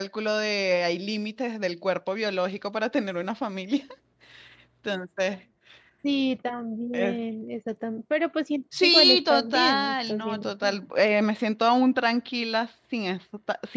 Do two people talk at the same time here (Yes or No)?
Yes